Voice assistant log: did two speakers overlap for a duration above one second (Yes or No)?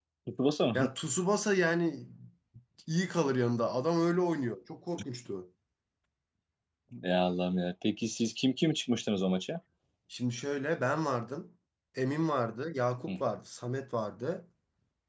No